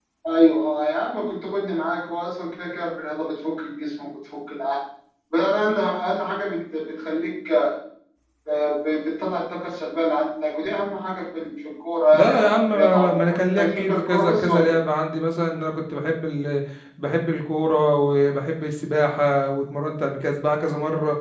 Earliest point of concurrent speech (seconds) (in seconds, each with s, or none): 12.1 s